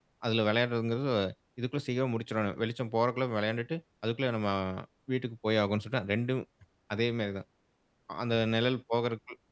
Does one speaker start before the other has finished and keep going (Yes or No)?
No